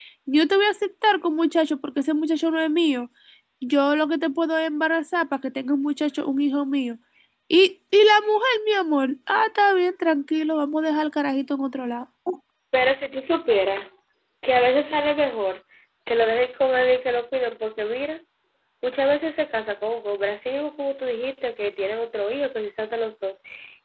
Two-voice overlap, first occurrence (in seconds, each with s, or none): none